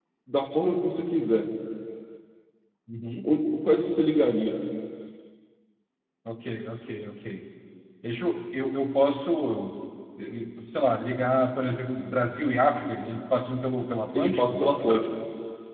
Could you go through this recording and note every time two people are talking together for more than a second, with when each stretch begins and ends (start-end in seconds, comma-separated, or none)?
none